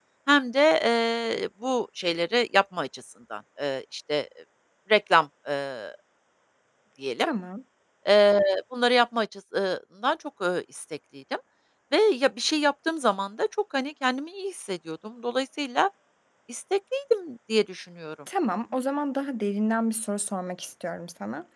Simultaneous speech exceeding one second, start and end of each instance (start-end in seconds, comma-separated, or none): none